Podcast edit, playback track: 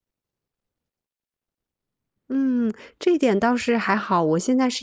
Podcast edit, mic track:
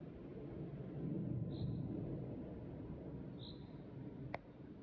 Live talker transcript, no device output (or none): none